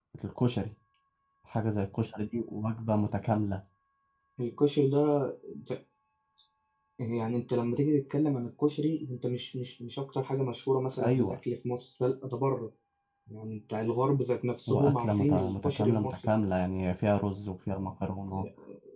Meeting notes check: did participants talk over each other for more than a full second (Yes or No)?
Yes